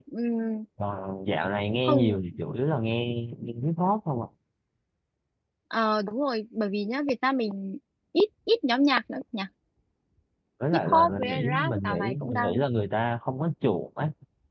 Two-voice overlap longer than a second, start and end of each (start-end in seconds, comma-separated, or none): 10.7-12.6